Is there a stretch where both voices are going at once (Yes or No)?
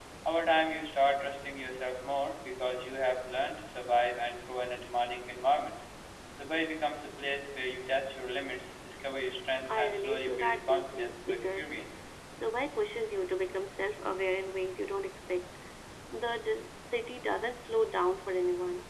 Yes